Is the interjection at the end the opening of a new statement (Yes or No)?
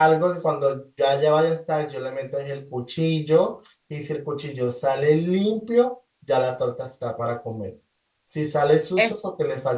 No